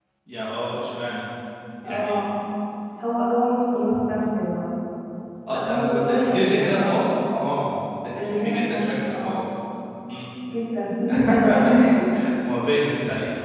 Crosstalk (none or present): present